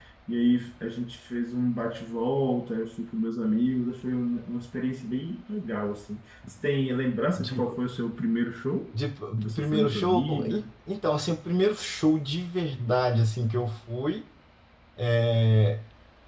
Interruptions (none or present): present